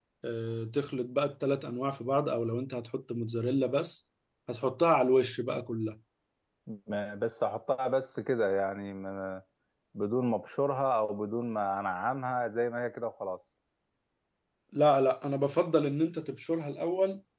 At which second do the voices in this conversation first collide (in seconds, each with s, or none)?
none